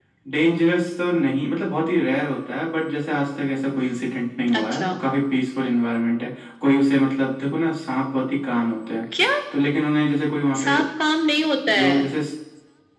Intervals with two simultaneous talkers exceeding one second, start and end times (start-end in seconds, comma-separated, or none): none